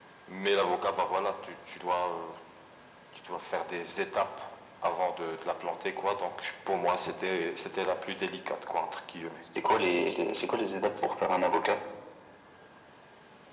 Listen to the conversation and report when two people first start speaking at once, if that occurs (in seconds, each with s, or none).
none